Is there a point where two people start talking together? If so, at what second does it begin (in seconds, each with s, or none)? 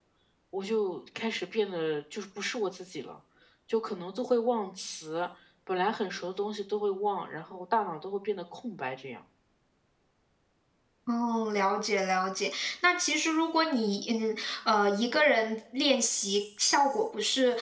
none